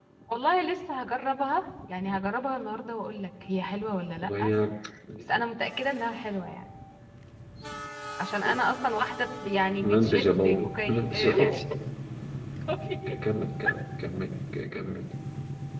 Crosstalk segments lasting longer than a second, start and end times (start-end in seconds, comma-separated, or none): 9.8-11.6